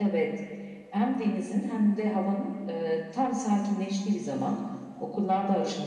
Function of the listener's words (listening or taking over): listening